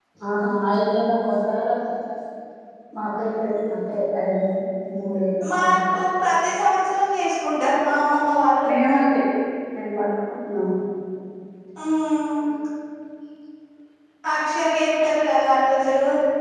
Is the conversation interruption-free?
Yes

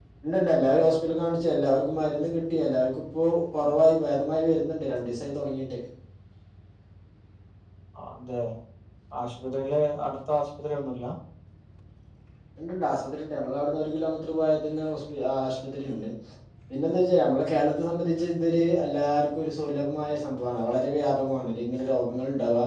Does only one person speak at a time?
Yes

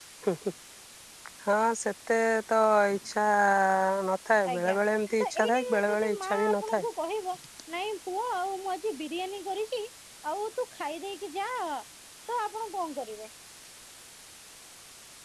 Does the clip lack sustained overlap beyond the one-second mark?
No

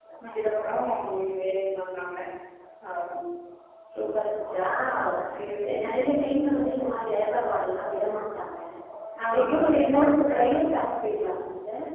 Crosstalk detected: Yes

